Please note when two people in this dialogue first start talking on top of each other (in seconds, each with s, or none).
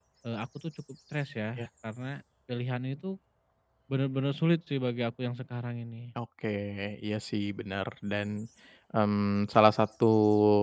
none